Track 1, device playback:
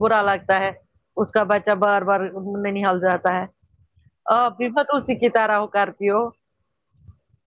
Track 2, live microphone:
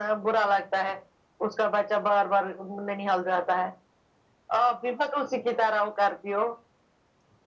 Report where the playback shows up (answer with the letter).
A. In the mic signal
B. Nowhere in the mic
A